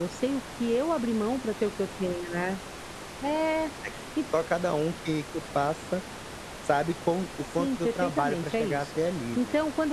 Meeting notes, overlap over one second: present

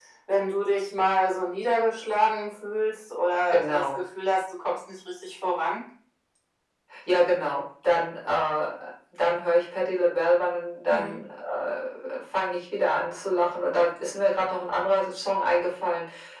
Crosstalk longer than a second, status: none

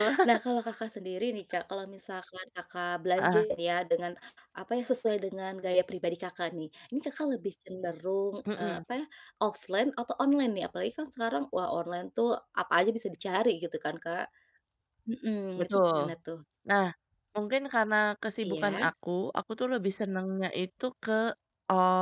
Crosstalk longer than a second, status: none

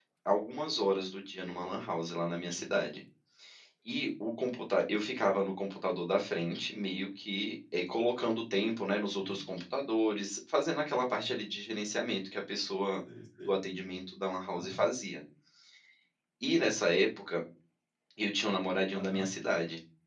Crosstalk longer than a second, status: none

